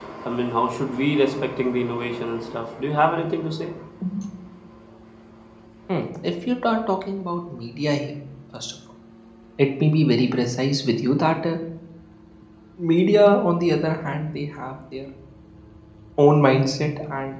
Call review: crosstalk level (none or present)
none